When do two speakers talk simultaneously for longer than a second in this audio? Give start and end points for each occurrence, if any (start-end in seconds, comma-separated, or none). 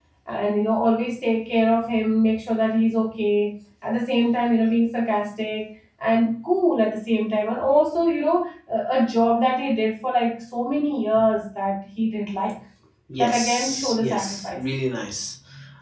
13.2-14.6